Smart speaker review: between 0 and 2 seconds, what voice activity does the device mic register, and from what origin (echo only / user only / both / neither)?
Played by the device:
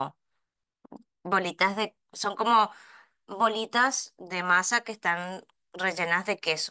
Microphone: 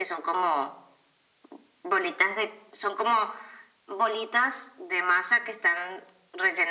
echo only